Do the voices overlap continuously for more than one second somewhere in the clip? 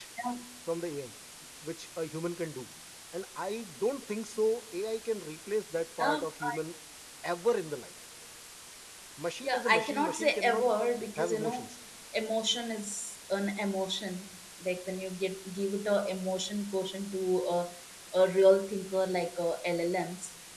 Yes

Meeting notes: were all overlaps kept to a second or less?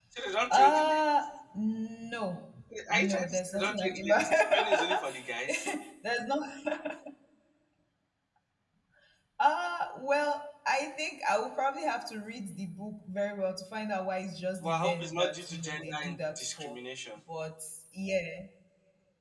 No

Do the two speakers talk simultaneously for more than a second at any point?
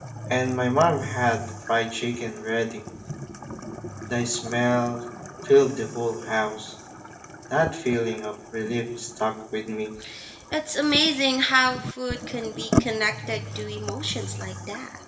No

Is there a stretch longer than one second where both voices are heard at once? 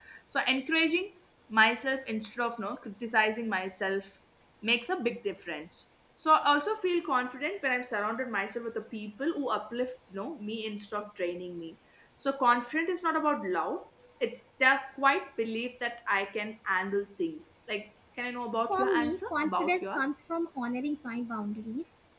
Yes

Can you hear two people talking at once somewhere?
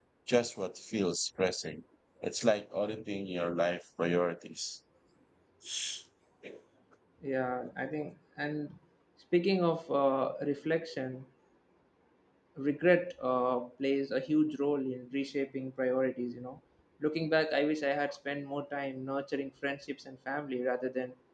No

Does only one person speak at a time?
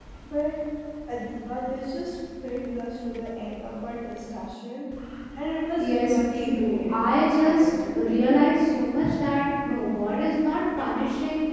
No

